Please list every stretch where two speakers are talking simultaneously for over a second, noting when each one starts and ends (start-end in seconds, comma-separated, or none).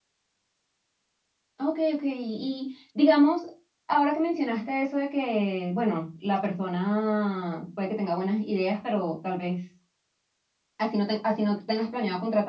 none